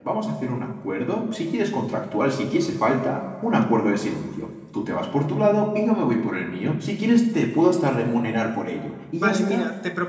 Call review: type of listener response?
taking over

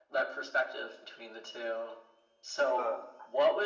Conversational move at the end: listening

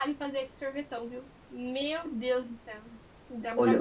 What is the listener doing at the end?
taking over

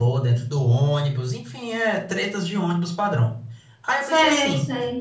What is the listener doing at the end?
taking over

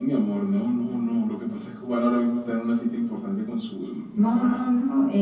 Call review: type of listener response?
taking over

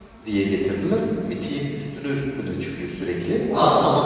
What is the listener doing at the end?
taking over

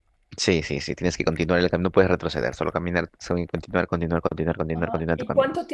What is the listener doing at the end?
taking over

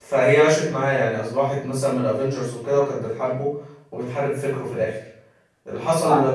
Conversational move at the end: listening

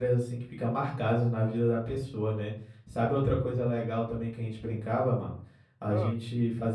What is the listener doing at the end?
listening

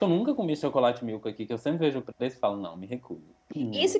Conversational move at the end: taking over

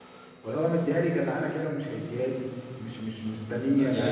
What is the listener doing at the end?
taking over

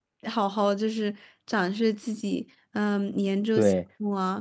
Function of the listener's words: listening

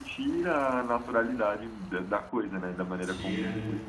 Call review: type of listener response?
taking over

